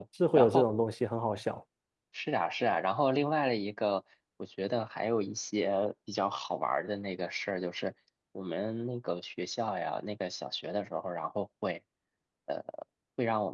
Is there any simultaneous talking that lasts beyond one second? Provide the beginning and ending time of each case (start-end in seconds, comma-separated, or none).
none